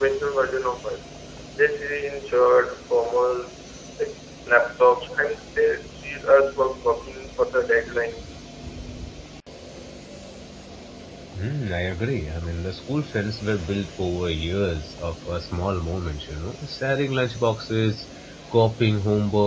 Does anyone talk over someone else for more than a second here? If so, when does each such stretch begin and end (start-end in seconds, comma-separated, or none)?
none